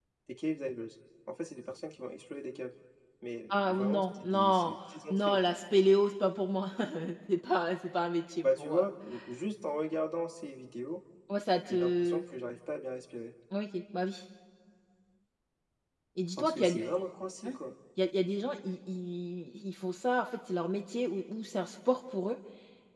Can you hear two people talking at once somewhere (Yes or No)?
Yes